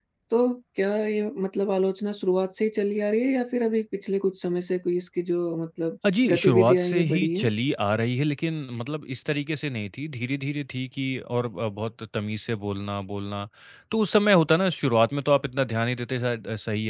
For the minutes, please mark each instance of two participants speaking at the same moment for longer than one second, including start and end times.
6.2-7.5

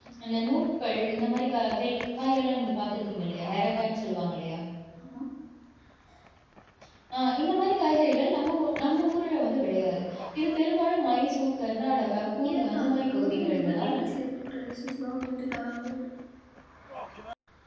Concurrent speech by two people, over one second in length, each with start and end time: 12.4-13.9

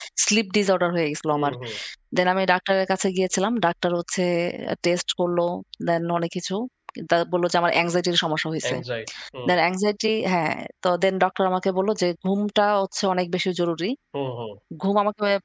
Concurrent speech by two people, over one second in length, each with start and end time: none

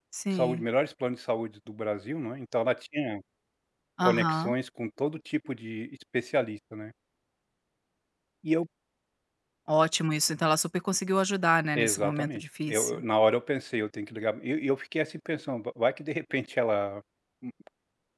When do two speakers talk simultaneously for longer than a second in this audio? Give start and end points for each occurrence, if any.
11.8-13.0

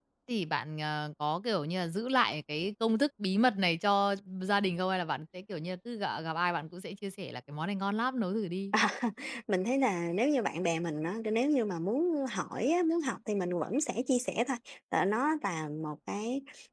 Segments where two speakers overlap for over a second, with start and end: none

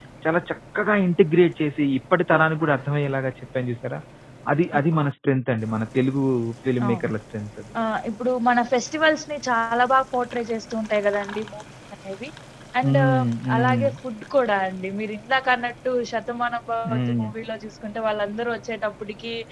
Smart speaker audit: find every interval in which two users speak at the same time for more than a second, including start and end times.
none

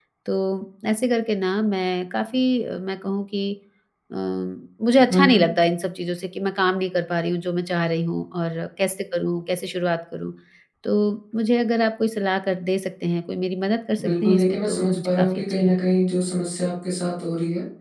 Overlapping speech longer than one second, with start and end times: 14.0-16.0

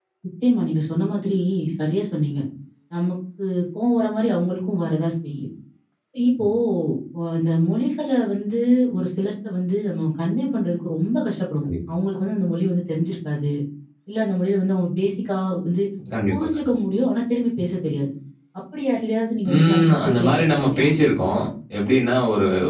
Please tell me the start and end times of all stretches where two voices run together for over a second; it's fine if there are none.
19.5-20.9

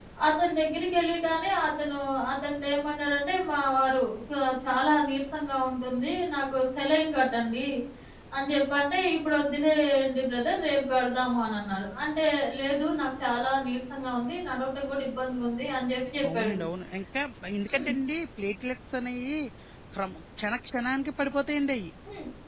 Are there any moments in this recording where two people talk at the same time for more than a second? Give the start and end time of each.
none

